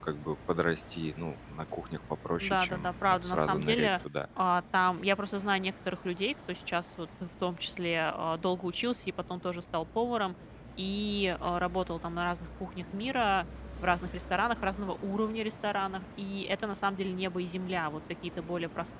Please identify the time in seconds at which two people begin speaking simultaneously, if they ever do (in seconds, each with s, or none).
2.4 s